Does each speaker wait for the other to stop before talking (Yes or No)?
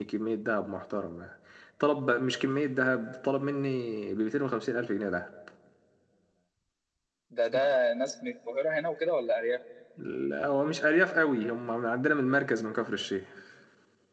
Yes